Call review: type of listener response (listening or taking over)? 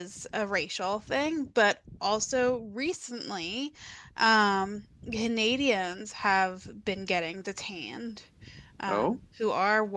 listening